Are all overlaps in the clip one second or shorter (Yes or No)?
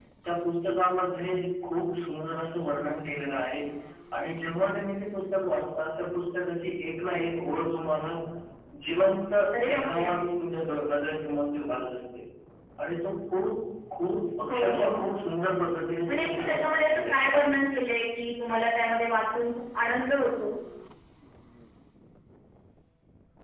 No